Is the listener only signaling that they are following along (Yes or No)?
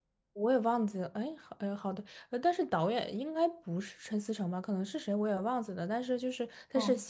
Yes